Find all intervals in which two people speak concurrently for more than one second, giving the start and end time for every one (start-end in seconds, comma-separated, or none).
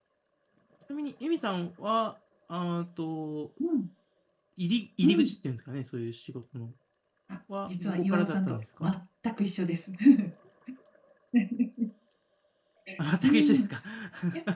7.6-8.9